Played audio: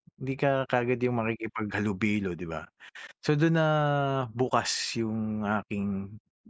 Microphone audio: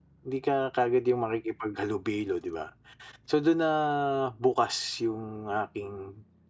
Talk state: echo only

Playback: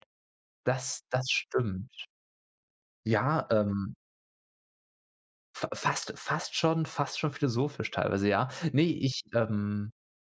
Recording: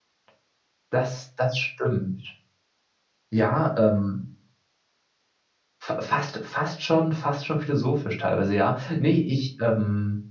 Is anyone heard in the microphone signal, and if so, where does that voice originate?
echo only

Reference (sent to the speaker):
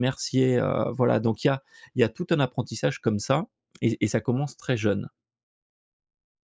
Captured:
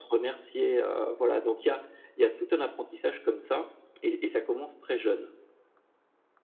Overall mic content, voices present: echo only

